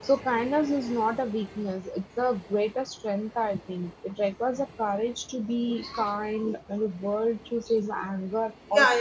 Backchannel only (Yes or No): No